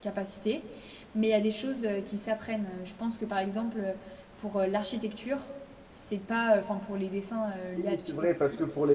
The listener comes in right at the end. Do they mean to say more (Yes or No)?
Yes